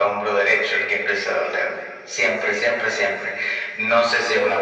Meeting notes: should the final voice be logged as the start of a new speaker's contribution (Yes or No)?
No